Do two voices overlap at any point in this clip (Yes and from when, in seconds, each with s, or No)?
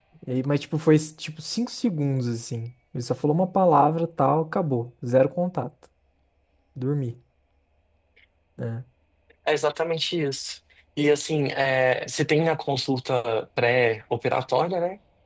No